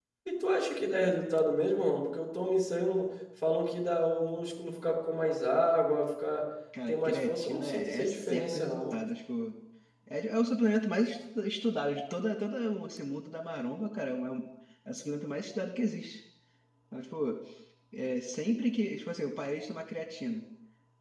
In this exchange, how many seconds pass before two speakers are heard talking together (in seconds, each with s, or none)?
6.7 s